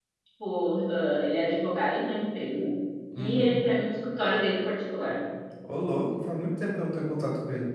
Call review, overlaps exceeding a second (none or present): none